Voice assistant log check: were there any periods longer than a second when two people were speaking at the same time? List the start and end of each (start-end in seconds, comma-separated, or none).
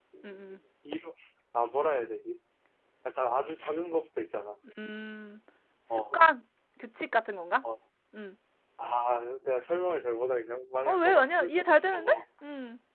10.9-12.2